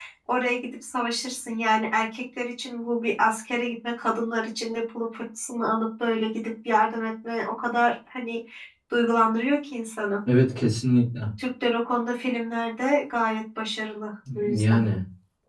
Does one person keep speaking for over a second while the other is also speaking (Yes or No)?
No